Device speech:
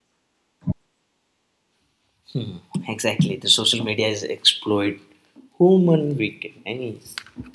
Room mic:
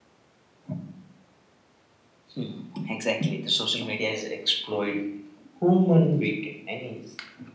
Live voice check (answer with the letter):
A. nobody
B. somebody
A